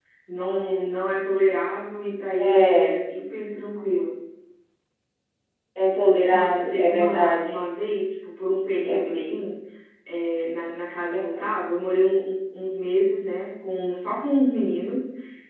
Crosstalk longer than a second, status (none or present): present